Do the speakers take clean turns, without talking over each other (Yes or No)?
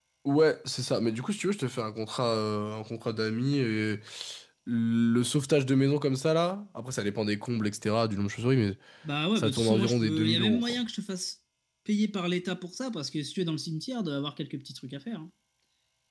No